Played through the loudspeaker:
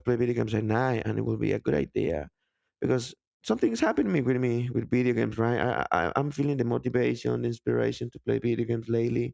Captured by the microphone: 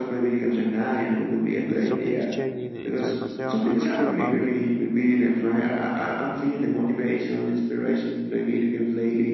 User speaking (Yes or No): Yes